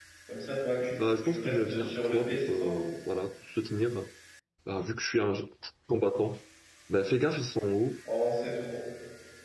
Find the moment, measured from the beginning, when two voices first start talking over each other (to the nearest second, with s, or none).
1 s